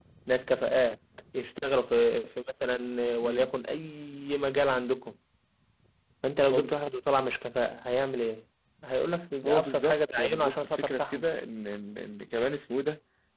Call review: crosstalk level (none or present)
present